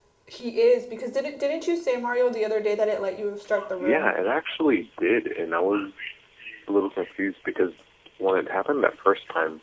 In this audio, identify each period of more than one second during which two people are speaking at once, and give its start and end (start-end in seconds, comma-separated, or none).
none